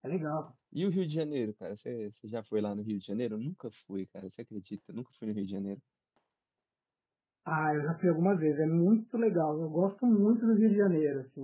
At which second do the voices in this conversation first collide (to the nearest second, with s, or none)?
none